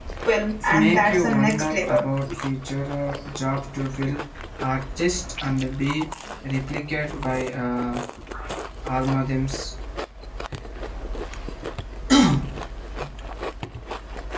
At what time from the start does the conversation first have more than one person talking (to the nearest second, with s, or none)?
1 s